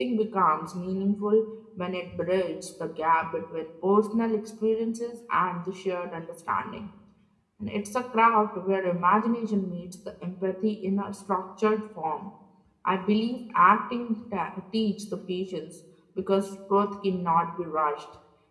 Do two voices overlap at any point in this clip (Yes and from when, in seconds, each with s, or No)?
No